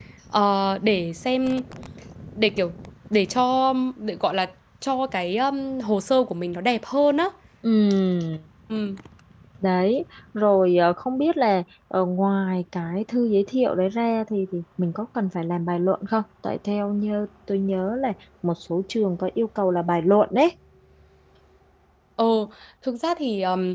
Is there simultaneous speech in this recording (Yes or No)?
No